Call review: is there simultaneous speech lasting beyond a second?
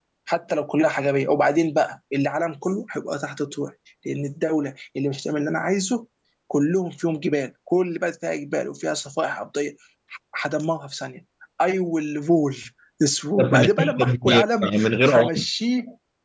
Yes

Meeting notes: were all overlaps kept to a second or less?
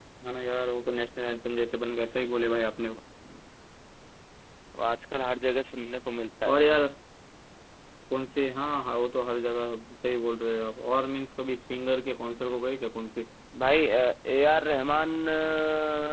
Yes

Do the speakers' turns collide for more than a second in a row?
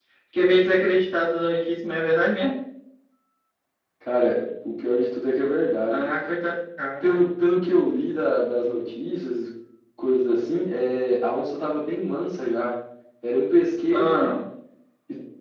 No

